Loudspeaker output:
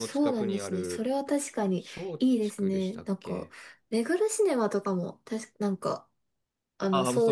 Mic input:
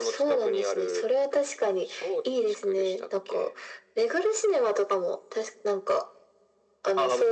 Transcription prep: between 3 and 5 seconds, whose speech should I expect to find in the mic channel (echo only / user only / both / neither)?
echo only